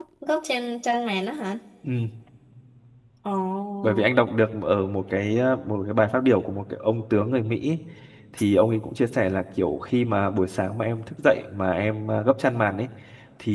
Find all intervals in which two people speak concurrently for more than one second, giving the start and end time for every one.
none

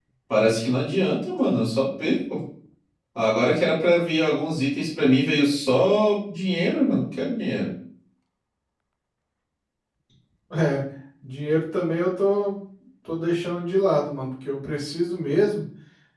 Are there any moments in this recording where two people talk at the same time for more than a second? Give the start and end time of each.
none

